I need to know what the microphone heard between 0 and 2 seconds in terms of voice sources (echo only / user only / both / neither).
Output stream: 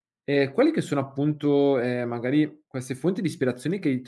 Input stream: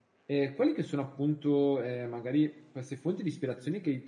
echo only